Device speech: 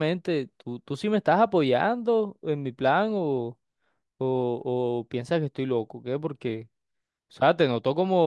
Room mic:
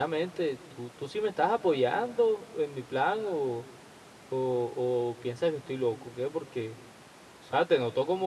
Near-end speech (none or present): none